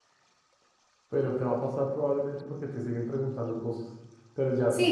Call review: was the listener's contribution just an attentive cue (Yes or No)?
No